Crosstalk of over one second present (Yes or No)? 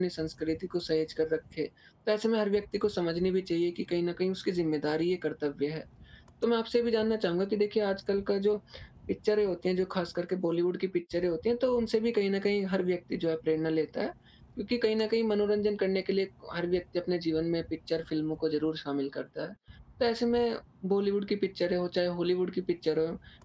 No